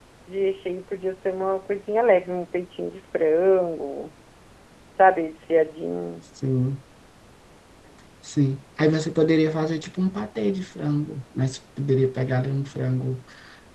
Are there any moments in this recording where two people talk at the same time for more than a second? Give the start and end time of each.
none

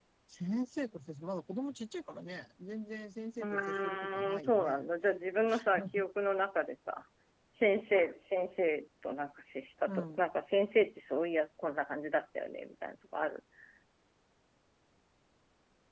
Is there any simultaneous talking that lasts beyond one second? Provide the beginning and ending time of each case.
3.4-4.8

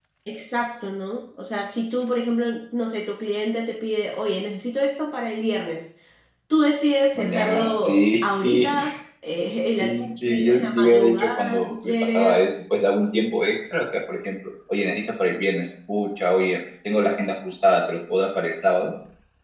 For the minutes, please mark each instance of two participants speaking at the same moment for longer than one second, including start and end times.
7.2-8.7, 9.8-12.4

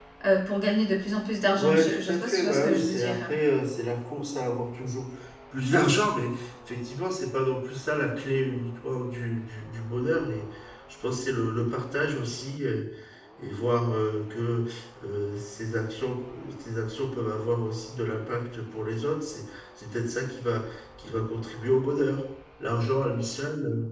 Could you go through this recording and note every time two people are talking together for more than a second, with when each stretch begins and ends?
1.5-3.3

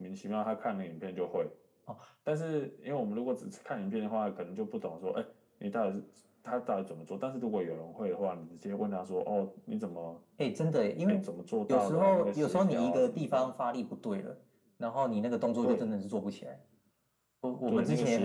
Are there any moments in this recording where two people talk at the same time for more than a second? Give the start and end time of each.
11.7-13.5

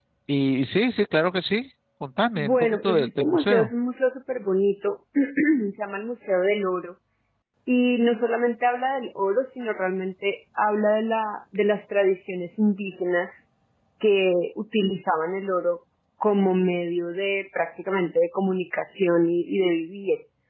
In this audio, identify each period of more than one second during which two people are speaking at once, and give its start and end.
2.4-3.7

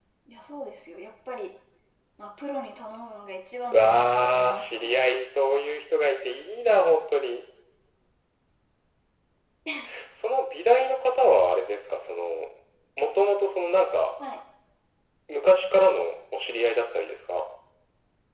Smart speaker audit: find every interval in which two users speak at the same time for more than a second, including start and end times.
3.7-5.0

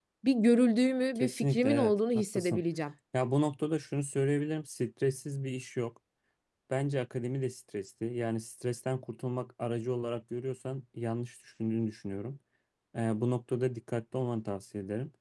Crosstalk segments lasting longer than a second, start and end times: 1.1-2.6

